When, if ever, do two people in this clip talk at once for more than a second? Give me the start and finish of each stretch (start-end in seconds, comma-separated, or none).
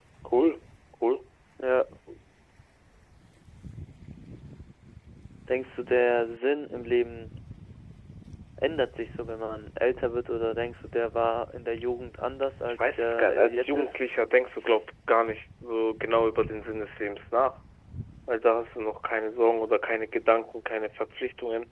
12.6-14.0